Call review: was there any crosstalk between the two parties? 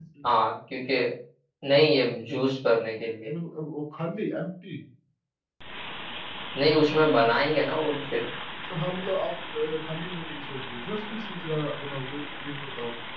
No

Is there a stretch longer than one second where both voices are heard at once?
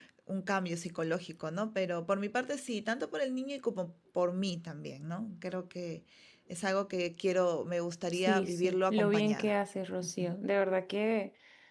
Yes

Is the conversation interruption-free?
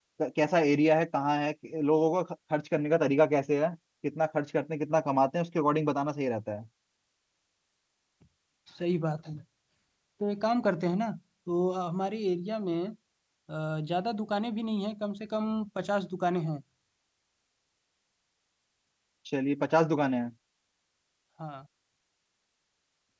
Yes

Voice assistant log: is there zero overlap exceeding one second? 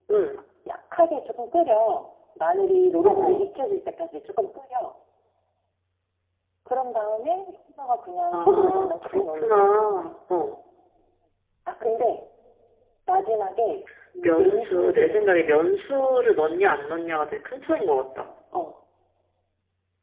No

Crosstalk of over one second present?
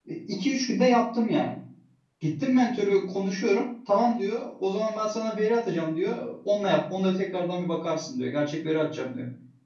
No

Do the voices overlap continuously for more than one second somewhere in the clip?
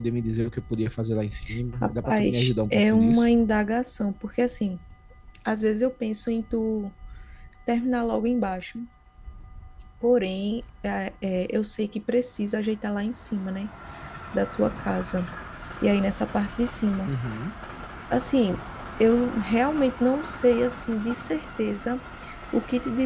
Yes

